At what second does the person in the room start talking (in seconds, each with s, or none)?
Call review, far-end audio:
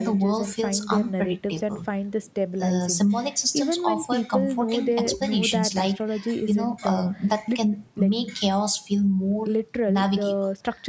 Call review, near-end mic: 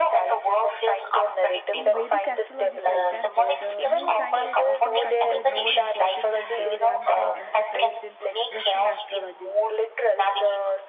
1.7 s